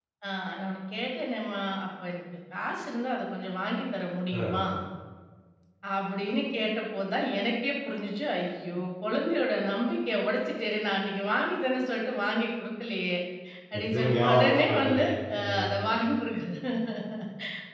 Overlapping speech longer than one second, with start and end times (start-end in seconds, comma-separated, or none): 13.7-15.0